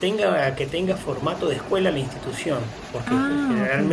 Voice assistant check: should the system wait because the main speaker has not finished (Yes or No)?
Yes